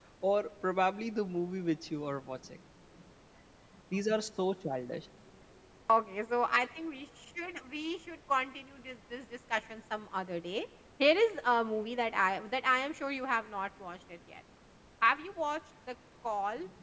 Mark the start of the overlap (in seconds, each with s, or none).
none